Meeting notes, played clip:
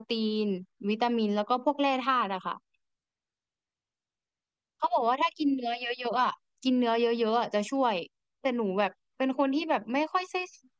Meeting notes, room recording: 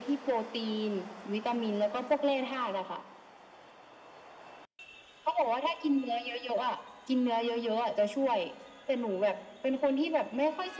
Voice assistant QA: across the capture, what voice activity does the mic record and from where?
echo only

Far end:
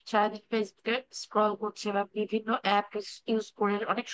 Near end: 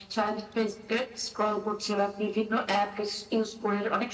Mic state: echo only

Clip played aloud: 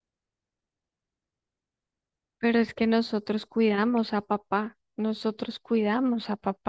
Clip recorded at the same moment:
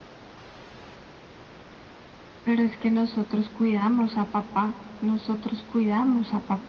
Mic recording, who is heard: echo only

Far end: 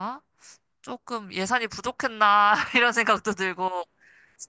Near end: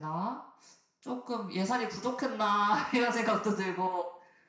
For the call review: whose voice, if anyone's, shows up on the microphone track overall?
echo only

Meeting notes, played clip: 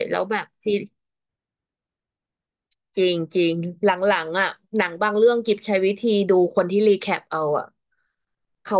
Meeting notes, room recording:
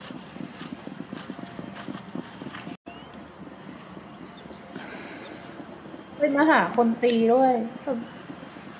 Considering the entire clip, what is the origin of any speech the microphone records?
user only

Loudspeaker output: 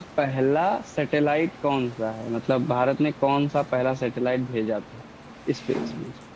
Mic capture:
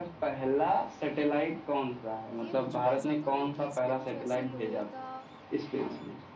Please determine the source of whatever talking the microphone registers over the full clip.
both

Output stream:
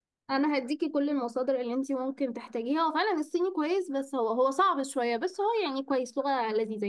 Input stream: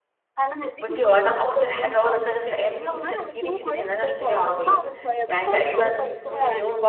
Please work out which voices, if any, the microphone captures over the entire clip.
both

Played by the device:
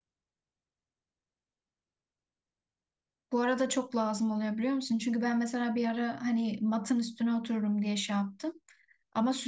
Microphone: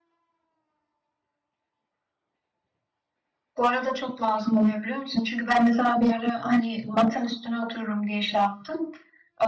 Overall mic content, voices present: echo only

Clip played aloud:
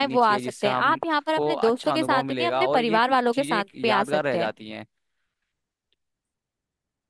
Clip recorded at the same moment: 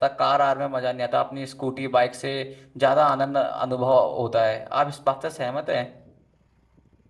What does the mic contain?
user only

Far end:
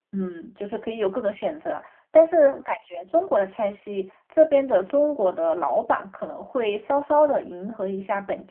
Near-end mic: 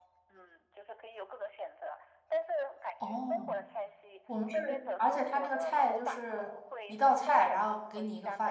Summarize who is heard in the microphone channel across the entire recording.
both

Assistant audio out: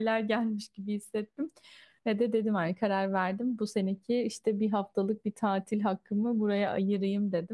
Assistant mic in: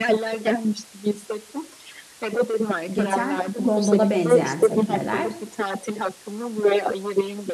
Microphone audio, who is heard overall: both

